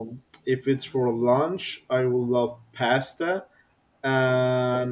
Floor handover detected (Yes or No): No